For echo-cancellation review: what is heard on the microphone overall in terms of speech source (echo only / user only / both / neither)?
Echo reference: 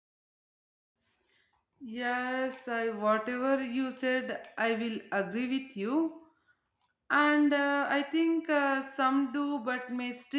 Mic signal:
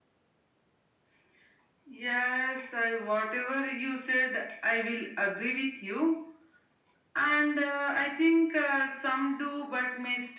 echo only